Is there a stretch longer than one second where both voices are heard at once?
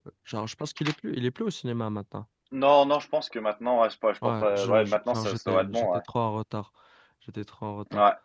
Yes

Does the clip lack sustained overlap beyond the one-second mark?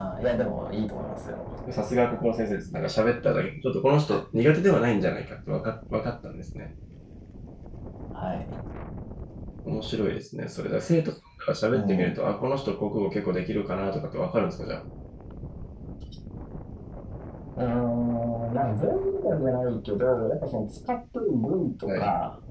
Yes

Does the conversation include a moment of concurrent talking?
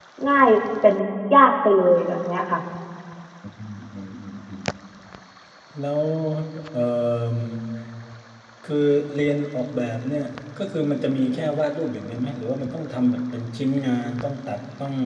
No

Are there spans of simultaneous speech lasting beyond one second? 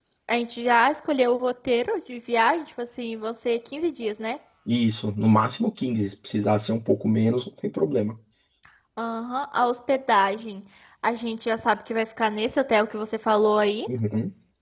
No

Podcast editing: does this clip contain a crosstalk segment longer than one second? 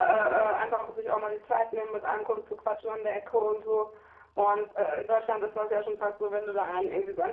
Yes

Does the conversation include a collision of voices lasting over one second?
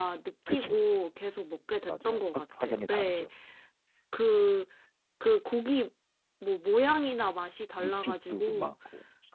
Yes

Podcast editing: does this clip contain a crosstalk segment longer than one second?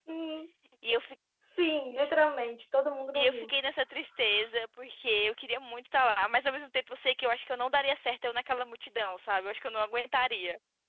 No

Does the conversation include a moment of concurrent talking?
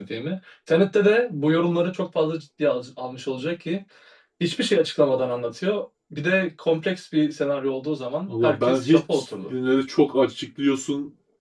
Yes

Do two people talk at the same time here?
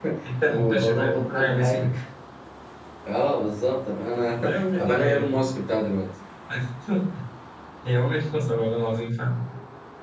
Yes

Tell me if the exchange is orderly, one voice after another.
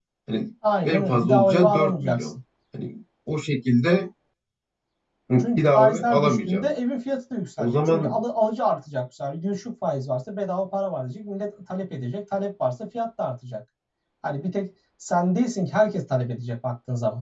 No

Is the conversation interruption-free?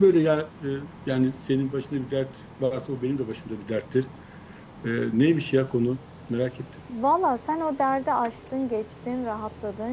Yes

